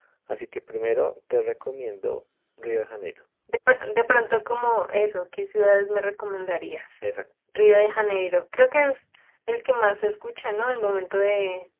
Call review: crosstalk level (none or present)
none